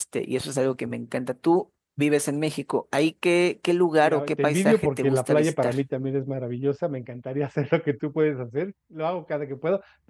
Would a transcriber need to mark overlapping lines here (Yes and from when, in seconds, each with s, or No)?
Yes, from 4.0 s